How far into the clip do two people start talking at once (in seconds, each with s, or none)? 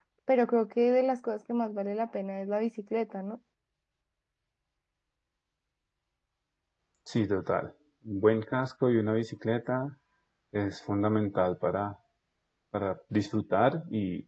none